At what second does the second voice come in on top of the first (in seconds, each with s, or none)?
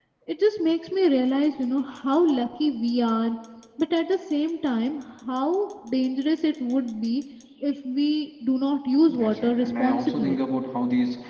9.1 s